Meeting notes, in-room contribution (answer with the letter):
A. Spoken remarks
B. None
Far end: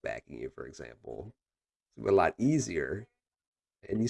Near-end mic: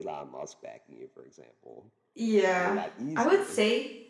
A